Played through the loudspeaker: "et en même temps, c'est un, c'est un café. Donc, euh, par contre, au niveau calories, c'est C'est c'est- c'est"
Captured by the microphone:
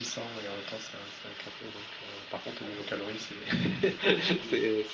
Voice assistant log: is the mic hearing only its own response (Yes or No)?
No